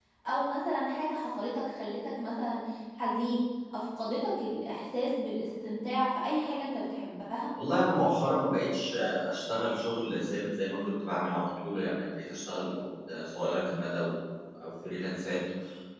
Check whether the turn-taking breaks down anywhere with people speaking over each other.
No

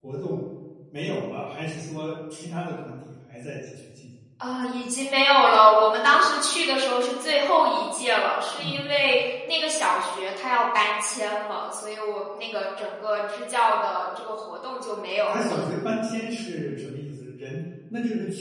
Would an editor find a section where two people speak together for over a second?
No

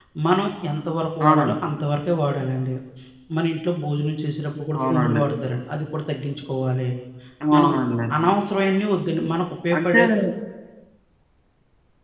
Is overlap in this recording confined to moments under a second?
Yes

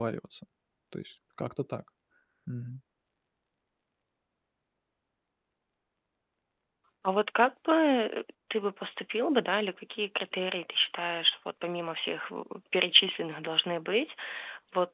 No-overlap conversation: Yes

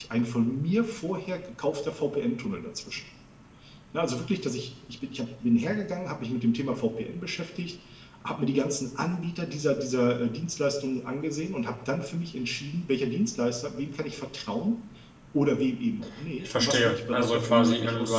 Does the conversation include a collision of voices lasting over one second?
Yes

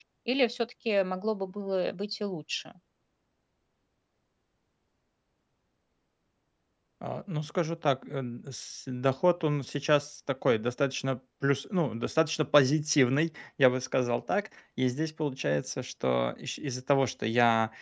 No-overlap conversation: Yes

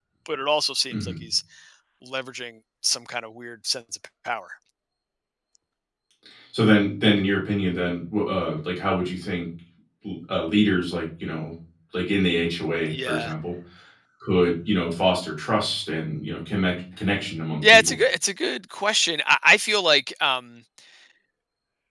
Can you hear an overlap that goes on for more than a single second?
No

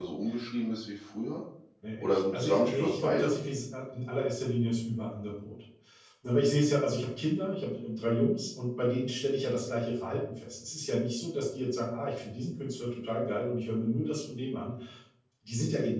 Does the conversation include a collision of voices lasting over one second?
Yes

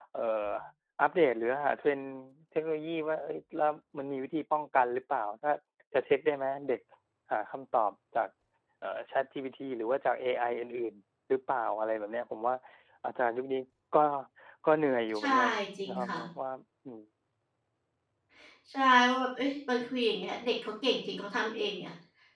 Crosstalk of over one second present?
No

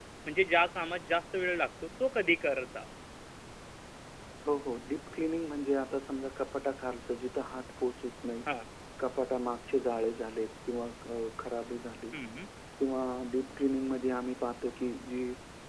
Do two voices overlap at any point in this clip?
No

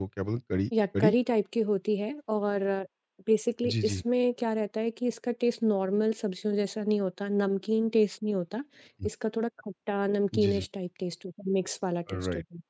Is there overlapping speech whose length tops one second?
No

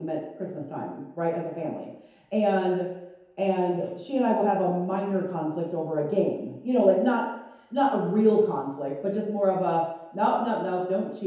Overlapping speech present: No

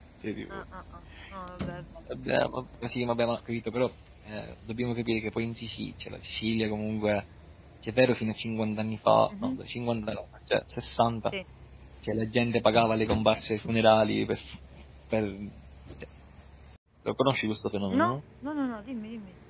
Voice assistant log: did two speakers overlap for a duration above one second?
No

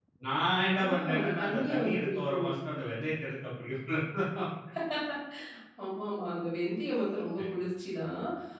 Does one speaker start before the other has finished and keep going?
Yes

